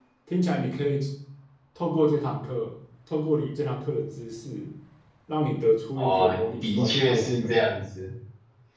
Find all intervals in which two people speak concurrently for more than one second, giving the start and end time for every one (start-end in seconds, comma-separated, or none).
6.0-7.6